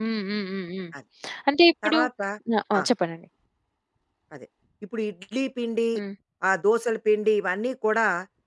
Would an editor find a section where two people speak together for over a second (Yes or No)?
No